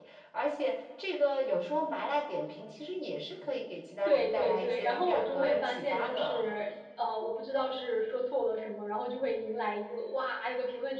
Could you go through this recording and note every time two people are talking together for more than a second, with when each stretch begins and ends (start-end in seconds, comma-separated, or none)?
4.1-6.5